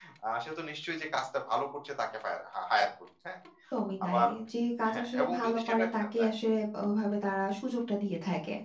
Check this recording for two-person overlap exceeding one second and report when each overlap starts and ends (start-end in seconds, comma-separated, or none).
4.9-6.3